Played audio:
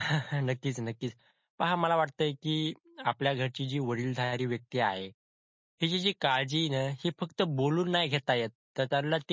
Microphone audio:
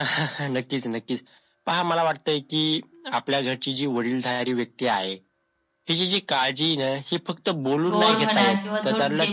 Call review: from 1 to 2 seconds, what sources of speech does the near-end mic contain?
echo only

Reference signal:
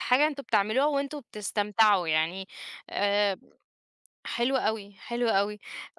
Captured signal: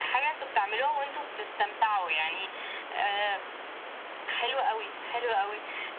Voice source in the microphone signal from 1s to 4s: echo only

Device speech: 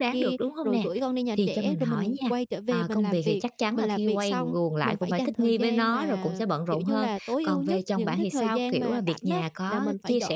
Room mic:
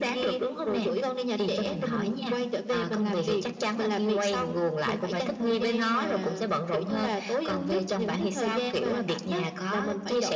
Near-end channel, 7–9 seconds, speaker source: echo only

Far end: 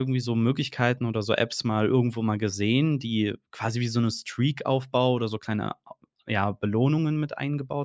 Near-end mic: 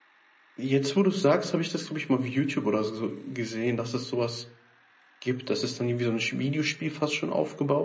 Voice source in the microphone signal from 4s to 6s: user only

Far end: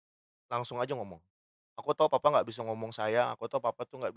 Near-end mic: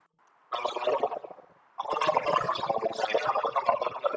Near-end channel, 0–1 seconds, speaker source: echo only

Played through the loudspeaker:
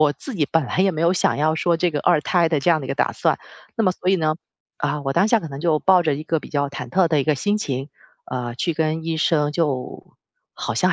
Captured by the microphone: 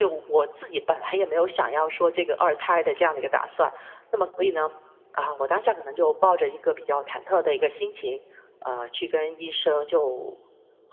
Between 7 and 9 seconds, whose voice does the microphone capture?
echo only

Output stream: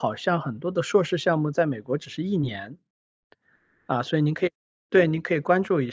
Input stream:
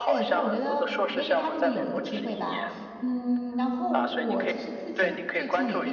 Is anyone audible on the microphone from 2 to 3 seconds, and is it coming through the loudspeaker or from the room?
both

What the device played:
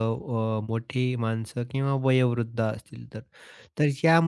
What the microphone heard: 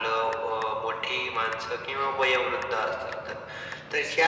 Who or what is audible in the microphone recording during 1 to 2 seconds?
echo only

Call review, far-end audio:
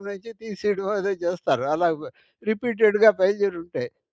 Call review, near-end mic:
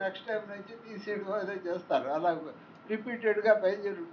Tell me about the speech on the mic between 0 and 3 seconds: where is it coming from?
echo only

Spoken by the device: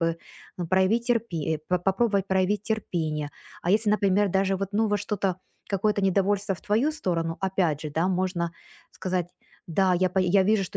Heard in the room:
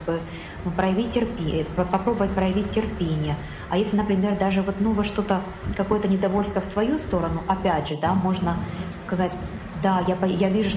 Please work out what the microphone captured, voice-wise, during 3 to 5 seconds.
echo only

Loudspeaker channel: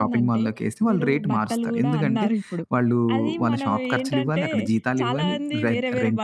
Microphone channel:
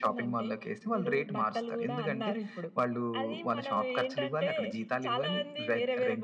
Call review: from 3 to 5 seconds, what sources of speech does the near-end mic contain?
echo only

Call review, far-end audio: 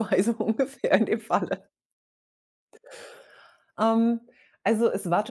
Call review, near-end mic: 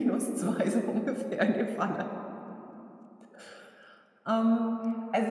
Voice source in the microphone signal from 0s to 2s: echo only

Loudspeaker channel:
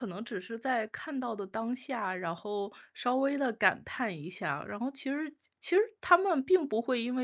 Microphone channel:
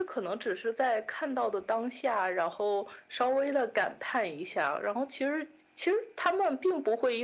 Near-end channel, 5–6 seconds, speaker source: echo only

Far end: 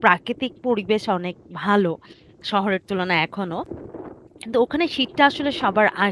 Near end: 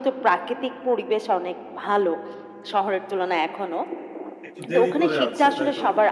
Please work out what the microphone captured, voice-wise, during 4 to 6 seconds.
both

